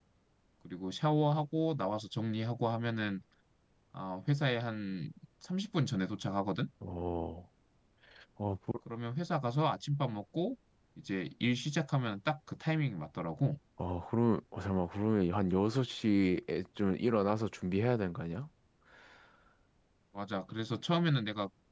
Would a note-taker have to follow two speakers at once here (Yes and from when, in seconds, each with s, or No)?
No